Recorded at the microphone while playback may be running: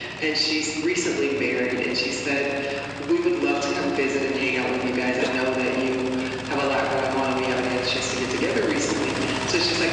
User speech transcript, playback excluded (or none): none